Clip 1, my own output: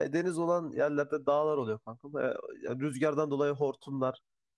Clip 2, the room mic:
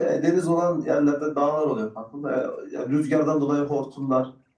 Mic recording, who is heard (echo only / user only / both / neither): echo only